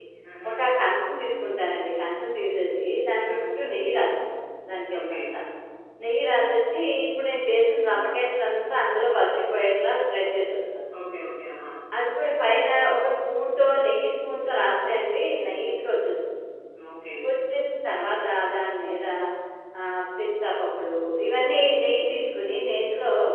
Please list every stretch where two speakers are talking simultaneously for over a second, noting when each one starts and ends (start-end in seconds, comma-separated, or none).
none